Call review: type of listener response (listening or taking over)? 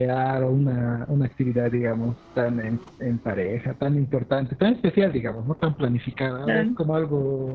listening